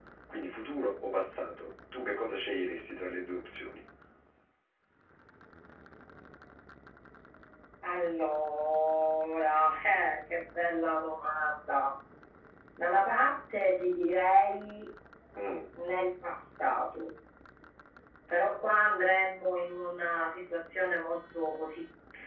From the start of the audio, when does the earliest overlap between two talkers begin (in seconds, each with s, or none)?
none